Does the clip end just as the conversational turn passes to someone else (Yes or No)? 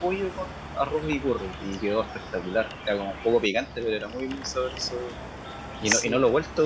No